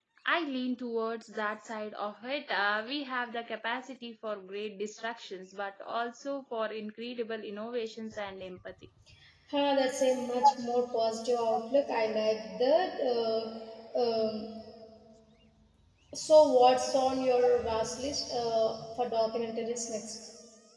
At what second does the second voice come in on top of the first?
none

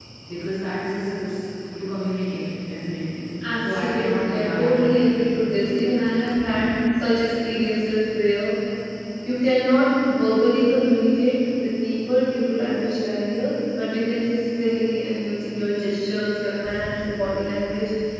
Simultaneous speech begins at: 3.6 s

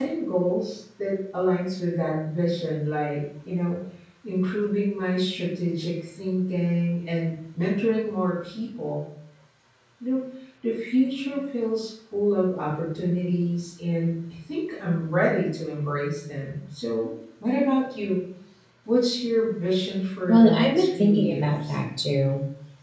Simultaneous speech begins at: 20.3 s

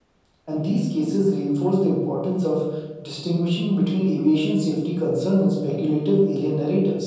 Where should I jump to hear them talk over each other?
none

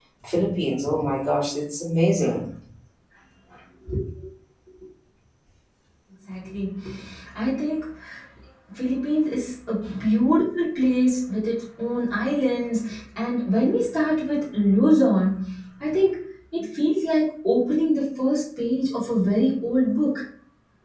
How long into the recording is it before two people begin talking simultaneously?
none

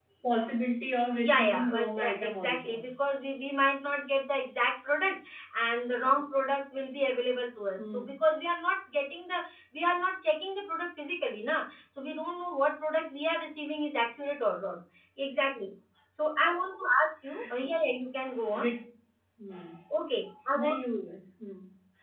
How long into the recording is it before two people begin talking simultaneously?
1.1 s

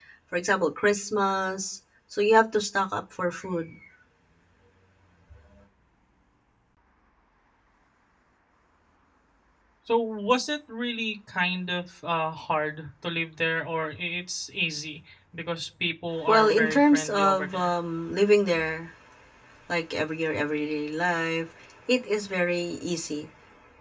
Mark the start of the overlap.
16.3 s

